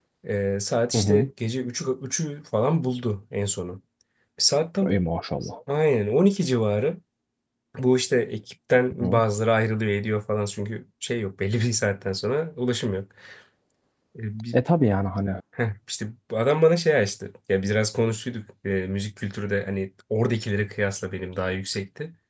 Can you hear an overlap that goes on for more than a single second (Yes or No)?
No